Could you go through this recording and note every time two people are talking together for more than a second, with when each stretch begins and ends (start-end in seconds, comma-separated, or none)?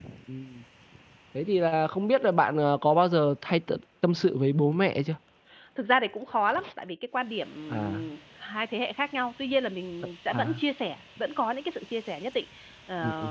none